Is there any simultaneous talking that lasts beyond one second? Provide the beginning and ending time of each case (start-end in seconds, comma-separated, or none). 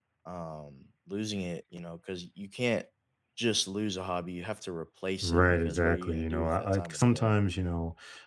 5.2-7.3